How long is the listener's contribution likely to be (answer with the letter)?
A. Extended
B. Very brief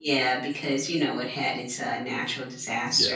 A